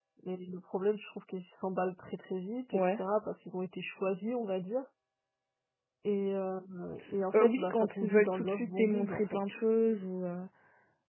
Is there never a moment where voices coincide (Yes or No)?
No